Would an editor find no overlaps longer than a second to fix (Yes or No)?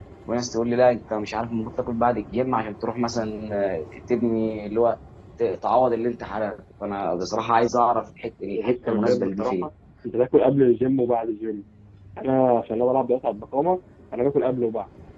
No